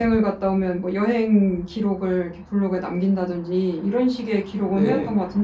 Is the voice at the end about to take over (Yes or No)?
No